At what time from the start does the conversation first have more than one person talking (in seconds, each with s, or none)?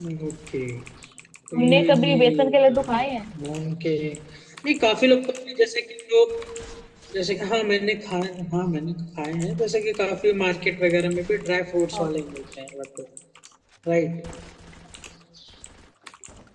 1.6 s